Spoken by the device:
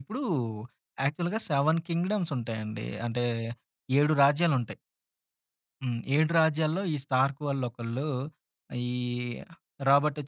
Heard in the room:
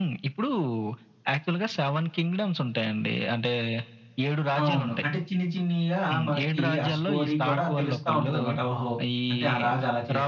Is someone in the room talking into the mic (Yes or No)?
Yes